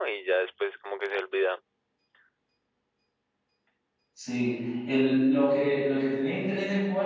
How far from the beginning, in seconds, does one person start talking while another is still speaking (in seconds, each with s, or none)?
none